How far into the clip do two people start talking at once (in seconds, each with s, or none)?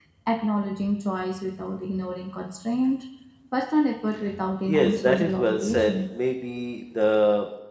4.7 s